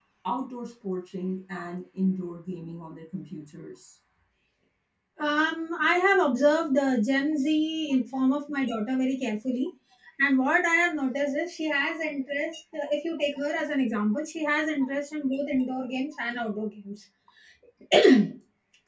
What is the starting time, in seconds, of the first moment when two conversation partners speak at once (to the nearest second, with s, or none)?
none